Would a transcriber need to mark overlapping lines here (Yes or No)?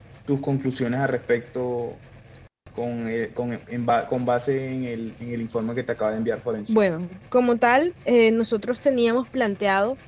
No